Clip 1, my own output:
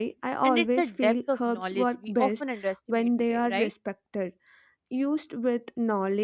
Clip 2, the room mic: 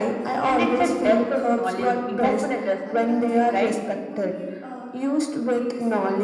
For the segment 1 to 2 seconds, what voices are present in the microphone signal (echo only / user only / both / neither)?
both